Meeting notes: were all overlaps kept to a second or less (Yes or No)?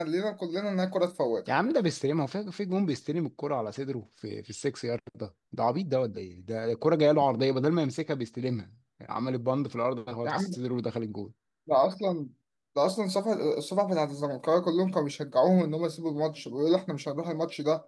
Yes